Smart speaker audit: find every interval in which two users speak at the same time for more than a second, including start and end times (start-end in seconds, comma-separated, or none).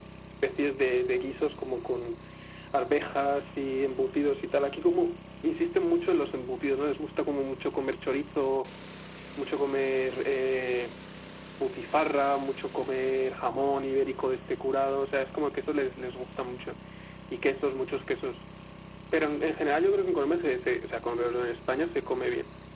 none